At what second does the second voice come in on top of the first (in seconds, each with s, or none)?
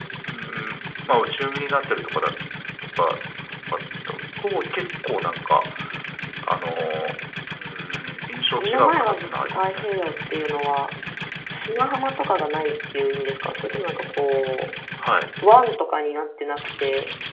8.6 s